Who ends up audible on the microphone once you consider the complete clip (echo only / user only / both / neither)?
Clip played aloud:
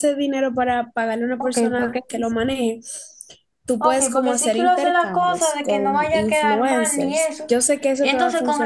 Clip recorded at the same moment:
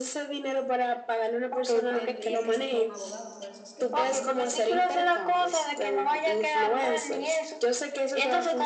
both